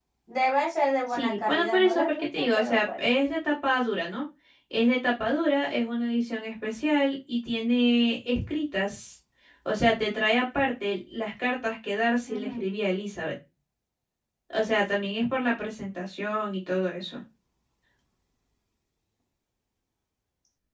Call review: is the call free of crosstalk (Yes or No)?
No